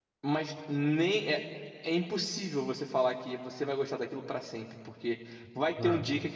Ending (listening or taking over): listening